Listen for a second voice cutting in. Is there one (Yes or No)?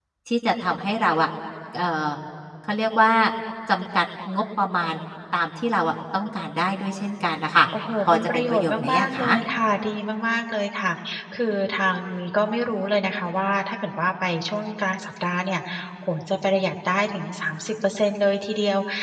Yes